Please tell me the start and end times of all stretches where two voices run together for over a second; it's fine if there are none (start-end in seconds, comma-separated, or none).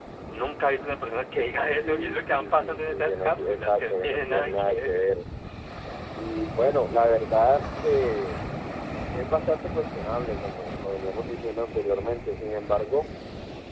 1.8-5.1